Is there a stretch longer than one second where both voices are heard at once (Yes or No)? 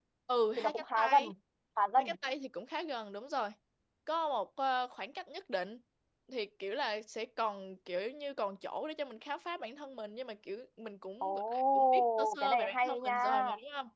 Yes